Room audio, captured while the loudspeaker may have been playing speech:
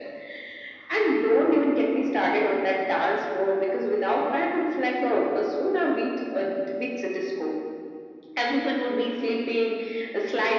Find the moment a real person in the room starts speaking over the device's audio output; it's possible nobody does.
none

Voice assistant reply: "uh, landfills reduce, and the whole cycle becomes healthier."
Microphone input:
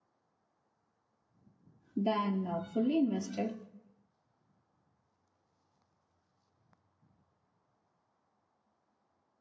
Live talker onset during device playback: 2 s

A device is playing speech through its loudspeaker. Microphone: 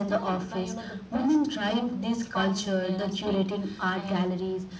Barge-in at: none

